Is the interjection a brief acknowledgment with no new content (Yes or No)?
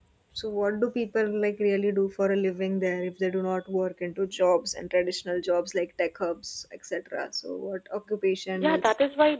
No